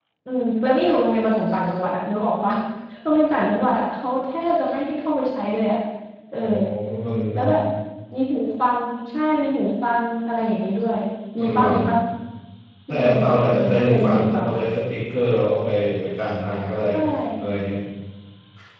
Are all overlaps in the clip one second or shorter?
No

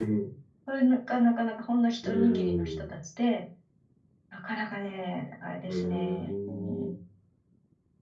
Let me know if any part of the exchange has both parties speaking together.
Yes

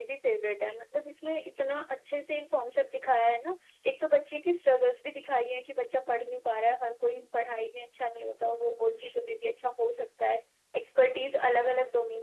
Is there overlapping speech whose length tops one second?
No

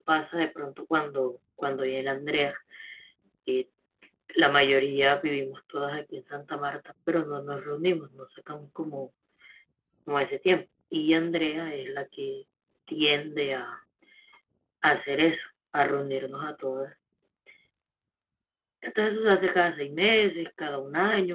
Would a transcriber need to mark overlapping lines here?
No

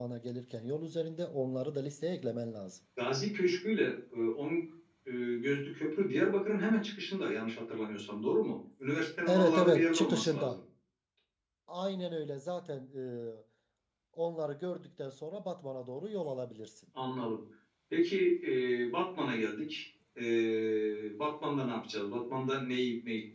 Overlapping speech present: Yes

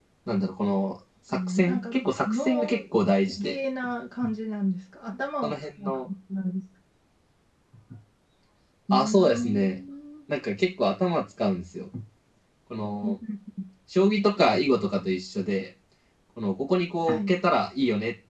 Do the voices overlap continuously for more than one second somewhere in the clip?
Yes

